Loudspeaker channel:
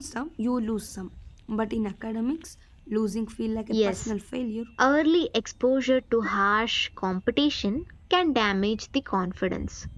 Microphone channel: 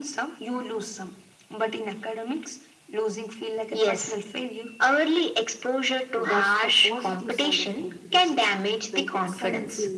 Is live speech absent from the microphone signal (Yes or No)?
No